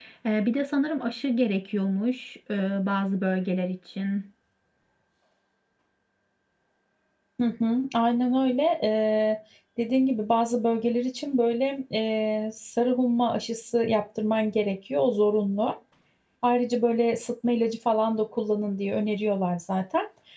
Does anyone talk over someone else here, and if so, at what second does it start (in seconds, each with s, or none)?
none